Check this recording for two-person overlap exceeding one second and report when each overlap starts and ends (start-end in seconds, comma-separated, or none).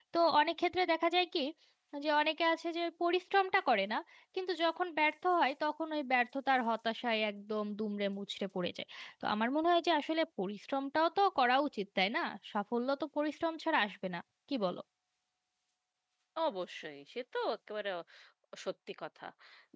none